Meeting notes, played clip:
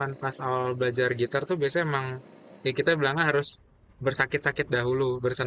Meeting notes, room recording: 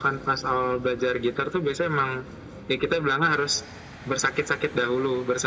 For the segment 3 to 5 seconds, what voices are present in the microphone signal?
echo only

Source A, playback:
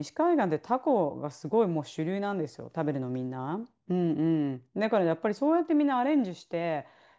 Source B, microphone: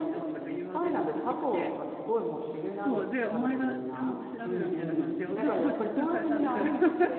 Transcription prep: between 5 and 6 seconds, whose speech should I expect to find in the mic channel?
both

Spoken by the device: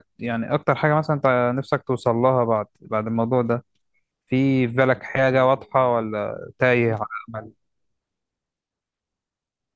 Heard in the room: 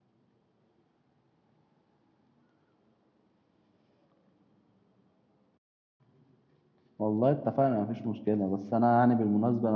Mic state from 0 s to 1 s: neither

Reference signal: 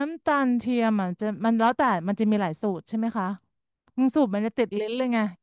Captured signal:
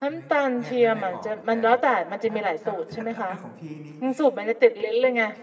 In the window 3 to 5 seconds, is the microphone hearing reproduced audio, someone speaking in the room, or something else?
both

